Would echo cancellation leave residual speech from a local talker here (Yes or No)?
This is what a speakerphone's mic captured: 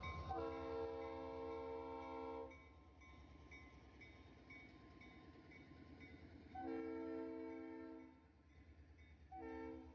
No